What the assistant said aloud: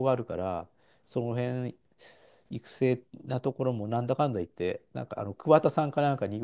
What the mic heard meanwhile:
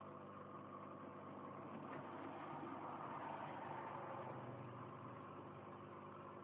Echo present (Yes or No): No